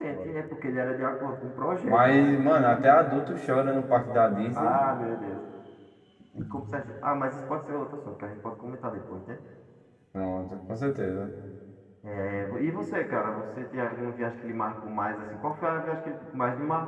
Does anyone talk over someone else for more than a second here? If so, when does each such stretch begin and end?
none

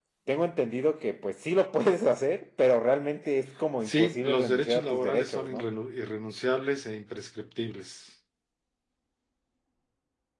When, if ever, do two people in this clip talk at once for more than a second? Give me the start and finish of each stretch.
3.9-5.6

